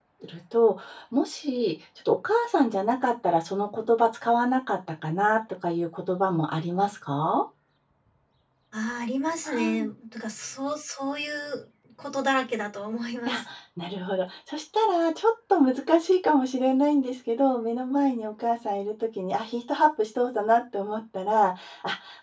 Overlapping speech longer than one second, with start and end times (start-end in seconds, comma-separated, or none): none